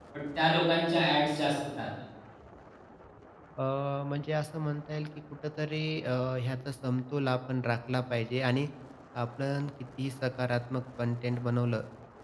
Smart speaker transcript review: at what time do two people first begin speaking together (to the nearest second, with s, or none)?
none